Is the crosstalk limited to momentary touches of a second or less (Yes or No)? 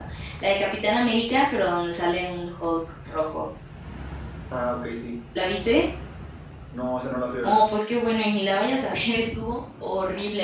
Yes